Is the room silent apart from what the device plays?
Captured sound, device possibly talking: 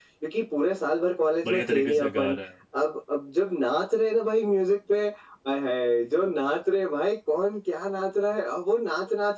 No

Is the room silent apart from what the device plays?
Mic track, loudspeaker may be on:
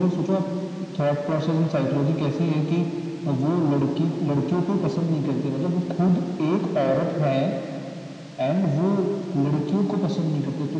Yes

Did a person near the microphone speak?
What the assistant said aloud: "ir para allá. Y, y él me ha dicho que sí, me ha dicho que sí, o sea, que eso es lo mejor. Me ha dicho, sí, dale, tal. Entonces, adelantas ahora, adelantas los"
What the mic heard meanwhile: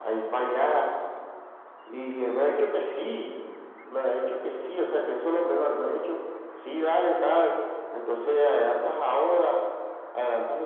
No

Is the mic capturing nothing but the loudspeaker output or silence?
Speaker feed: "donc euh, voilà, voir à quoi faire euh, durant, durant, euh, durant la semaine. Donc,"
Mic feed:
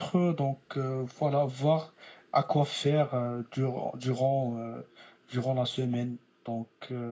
Yes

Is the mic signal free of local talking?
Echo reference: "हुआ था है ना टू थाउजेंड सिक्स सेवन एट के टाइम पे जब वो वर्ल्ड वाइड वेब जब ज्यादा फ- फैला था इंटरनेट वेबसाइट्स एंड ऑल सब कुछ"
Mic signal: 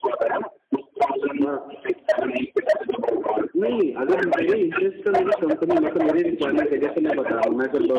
No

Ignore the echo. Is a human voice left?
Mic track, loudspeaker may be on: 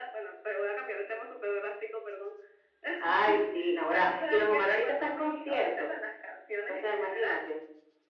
No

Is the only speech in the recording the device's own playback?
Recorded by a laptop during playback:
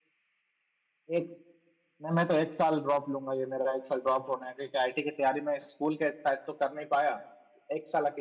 Yes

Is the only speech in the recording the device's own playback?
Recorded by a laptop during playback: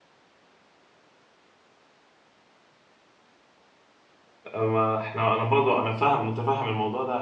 No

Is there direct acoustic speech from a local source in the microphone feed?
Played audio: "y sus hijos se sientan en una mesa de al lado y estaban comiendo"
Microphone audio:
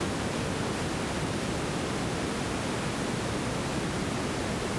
No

